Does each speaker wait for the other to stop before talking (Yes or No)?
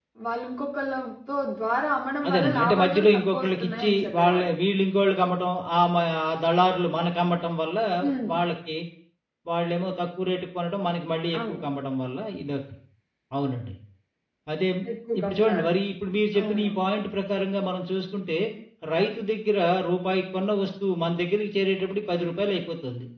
No